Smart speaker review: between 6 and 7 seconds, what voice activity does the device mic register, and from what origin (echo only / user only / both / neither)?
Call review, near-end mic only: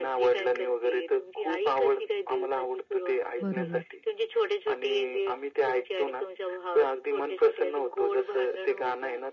echo only